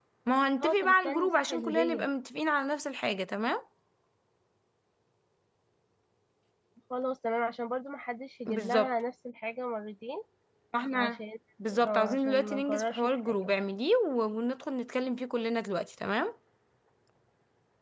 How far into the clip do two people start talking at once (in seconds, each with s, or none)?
0.6 s